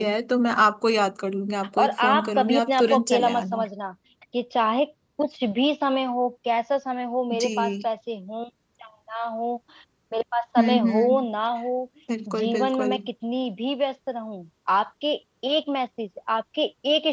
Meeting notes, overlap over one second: present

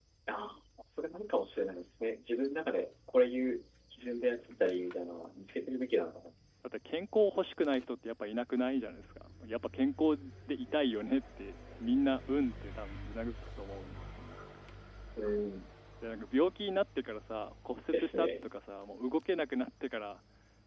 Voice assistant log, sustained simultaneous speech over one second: none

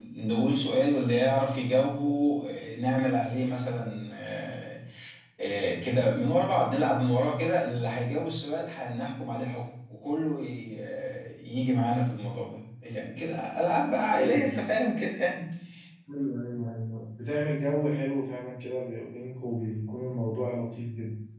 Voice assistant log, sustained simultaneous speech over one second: none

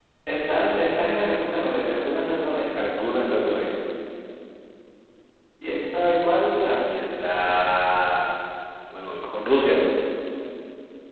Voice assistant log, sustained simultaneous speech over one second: none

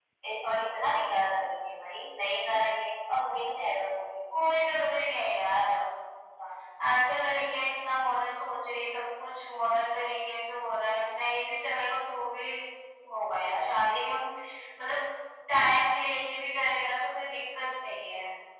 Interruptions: none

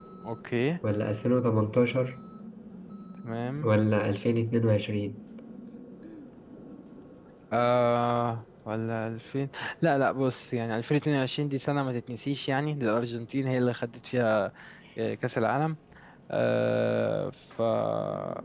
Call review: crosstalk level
none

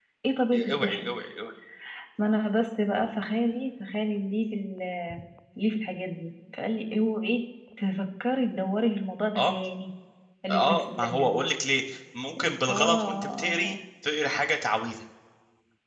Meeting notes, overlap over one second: present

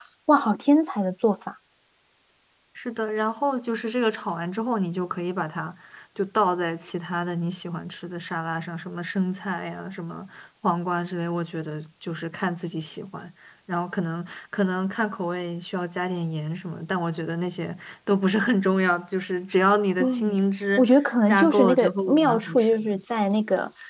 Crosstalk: present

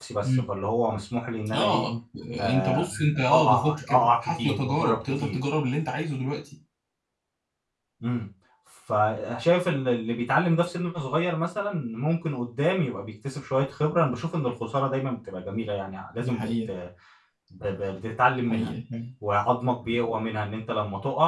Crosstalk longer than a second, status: present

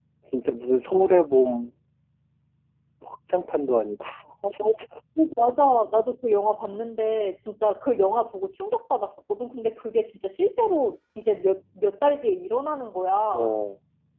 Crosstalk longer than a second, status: none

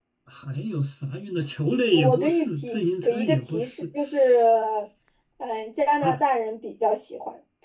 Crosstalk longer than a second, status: present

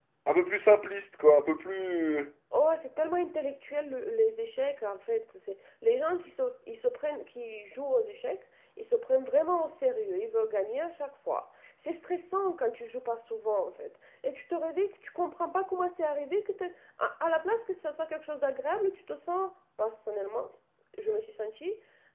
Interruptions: none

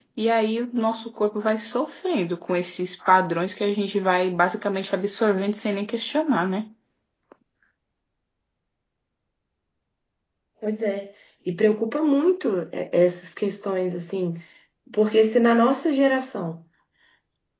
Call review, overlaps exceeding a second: none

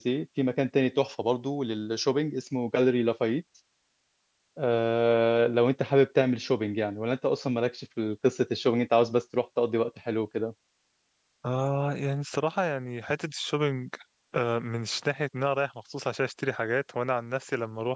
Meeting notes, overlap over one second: none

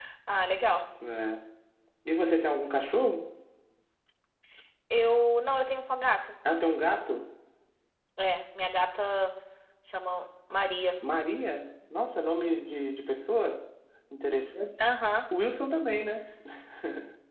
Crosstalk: none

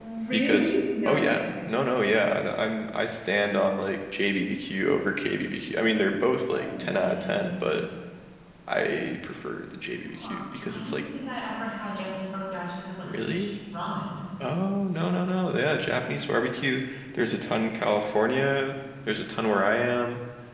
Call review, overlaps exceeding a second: present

